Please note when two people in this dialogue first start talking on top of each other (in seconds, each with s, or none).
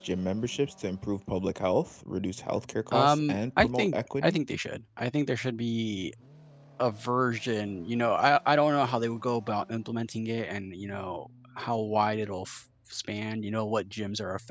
2.9 s